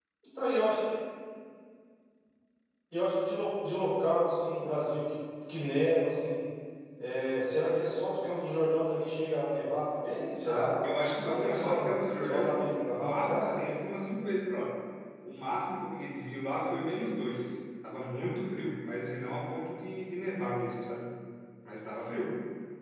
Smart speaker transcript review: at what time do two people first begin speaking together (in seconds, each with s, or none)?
10.4 s